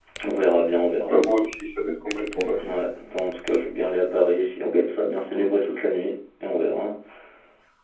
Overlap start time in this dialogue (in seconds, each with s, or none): none